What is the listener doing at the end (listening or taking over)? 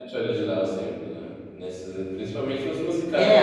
taking over